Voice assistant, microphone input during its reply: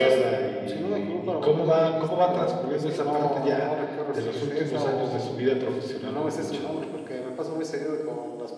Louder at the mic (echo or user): echo